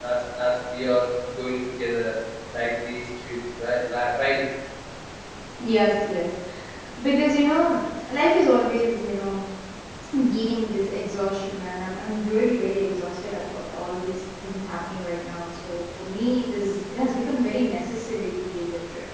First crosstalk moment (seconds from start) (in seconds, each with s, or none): none